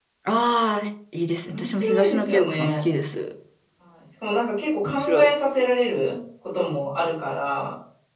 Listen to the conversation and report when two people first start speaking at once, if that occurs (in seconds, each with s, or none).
1.5 s